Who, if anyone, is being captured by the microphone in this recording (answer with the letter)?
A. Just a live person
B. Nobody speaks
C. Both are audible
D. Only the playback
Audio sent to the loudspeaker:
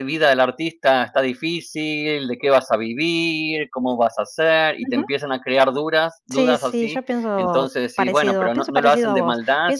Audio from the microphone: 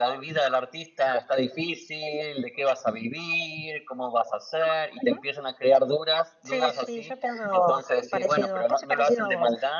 D